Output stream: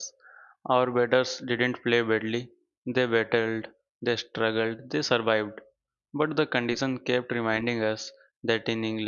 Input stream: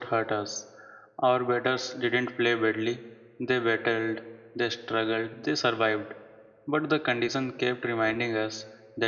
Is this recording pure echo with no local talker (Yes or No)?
Yes